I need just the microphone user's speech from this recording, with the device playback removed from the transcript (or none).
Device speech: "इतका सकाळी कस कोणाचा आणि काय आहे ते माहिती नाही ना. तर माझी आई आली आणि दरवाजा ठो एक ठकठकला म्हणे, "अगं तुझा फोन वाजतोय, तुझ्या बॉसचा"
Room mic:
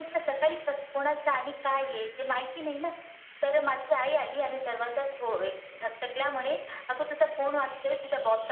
none